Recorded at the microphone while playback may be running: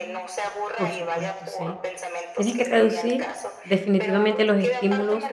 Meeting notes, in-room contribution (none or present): present